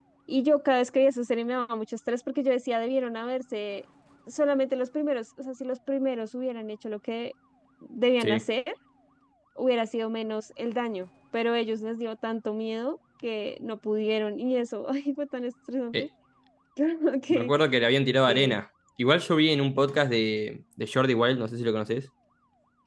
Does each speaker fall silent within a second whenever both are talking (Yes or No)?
Yes